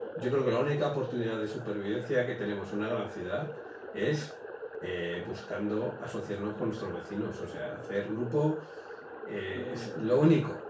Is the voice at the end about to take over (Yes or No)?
No